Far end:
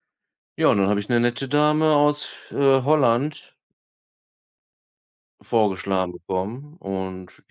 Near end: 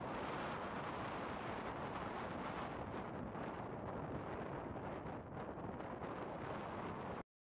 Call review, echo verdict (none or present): none